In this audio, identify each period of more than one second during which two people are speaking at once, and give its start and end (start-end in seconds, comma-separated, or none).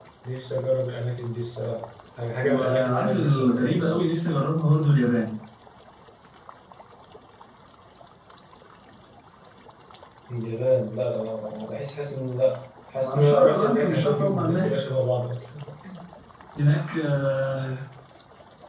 2.4-4.0, 13.0-15.0